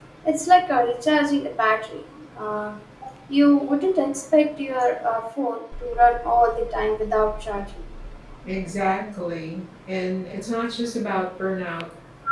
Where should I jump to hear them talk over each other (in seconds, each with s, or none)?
none